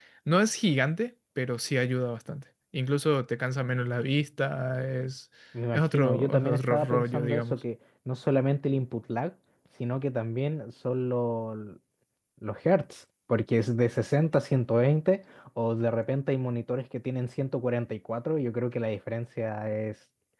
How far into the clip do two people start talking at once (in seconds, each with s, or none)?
5.7 s